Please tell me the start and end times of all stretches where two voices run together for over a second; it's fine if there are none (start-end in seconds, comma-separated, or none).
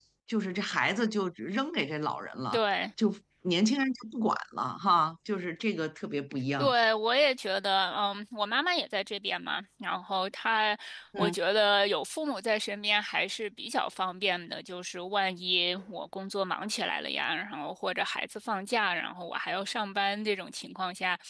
none